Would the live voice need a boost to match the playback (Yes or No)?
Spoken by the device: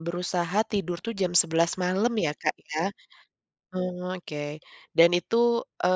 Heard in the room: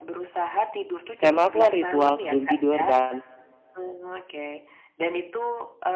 No